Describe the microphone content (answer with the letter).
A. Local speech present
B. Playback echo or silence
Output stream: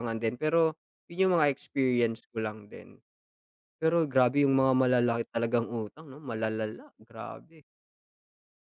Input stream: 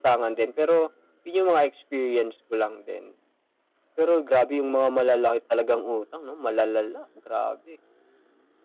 B